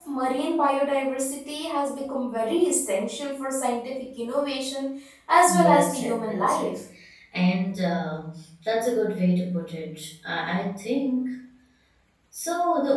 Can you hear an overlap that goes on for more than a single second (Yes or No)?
Yes